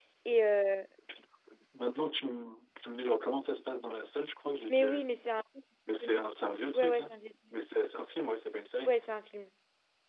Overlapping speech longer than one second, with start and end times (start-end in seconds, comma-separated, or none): none